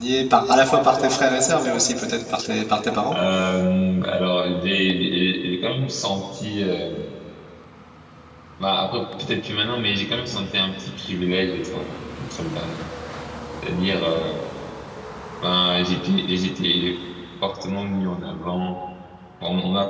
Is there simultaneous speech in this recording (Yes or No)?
No